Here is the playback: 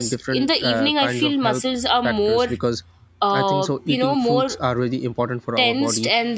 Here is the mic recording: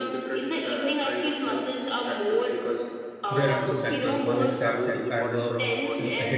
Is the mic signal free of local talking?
No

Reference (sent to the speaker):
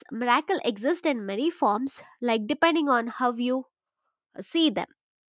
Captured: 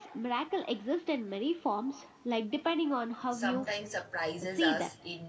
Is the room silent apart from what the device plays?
No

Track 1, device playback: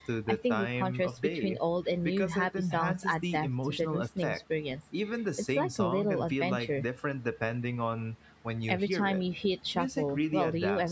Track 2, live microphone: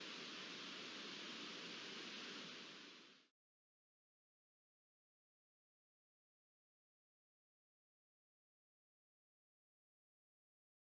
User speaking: No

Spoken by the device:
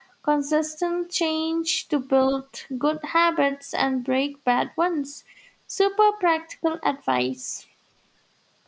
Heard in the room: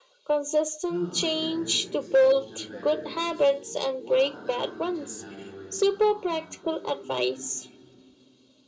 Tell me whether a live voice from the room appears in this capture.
Yes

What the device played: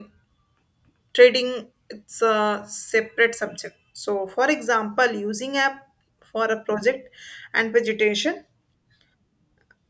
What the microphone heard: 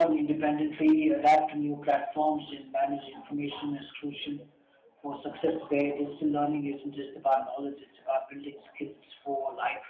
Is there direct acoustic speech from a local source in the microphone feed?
Yes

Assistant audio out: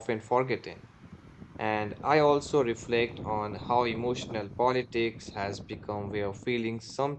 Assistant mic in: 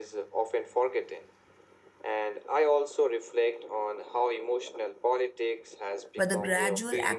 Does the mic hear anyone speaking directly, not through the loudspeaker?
Yes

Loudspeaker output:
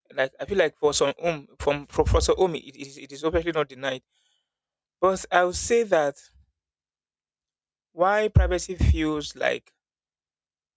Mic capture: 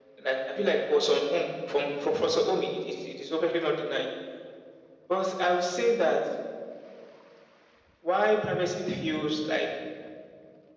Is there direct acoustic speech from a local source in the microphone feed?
No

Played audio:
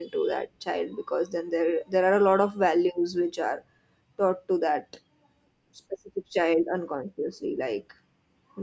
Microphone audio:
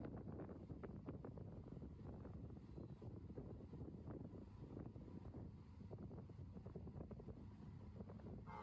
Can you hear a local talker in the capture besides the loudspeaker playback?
No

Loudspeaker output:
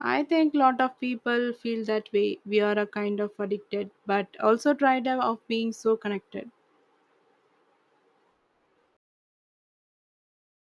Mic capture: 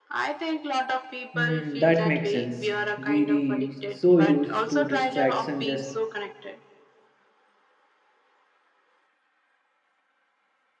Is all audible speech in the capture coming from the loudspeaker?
No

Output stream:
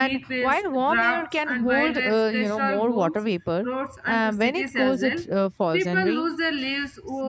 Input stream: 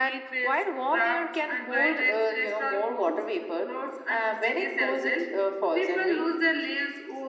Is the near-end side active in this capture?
No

